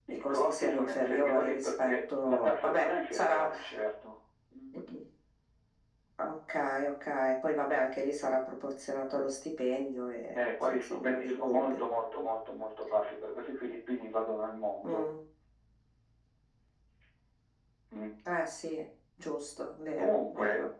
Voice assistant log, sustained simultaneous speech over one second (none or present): present